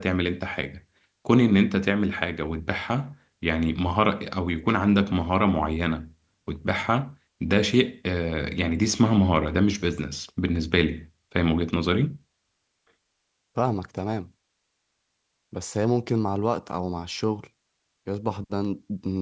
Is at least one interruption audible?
No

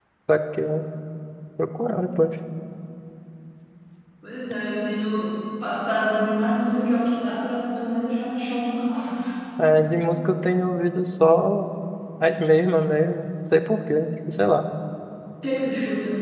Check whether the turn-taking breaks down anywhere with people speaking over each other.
No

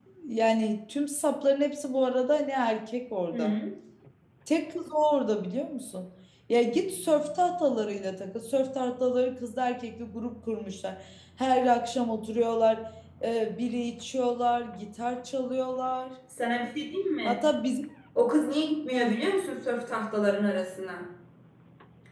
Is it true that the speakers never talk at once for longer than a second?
Yes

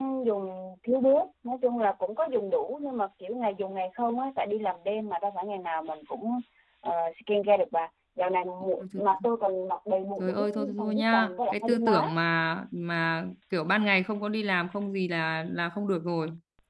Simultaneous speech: Yes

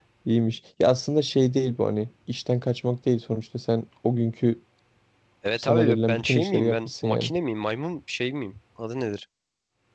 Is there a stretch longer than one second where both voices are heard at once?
Yes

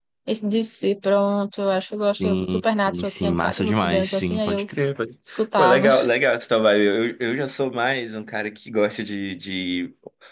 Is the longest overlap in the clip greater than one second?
Yes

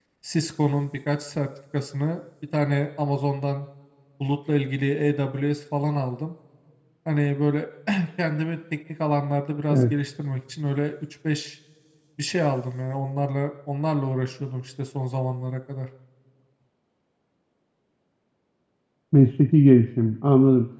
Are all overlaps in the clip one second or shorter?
Yes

